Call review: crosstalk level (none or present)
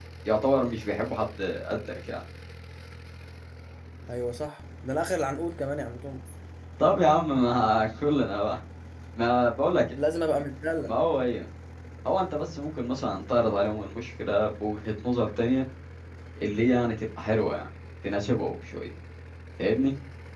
none